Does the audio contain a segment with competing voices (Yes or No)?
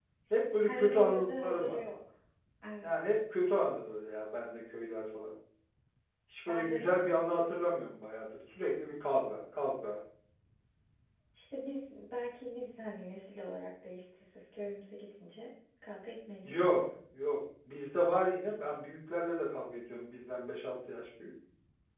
Yes